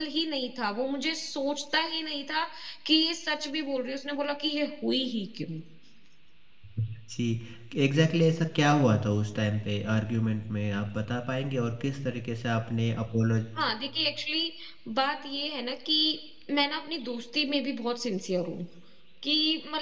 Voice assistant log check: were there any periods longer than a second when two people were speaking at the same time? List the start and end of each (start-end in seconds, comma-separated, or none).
none